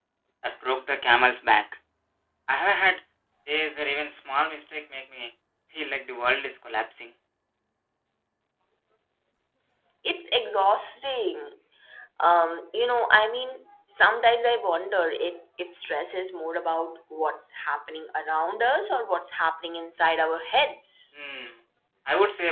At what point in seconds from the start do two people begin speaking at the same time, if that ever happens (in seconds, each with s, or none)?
none